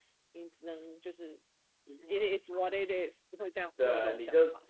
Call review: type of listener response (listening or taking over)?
taking over